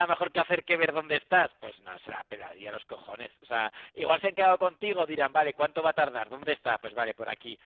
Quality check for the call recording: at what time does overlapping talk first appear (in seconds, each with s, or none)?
none